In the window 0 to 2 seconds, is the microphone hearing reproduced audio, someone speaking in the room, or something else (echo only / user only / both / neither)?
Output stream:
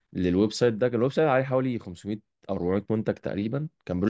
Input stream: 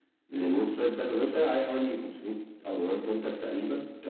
echo only